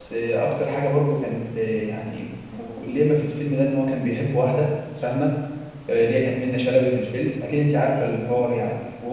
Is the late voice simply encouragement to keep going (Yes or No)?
Yes